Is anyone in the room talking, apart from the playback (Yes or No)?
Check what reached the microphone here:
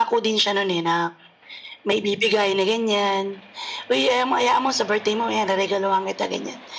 No